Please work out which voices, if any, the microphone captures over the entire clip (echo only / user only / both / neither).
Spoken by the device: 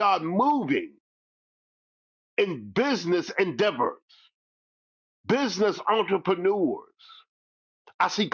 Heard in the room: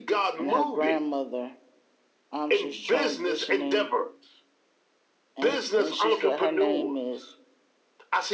both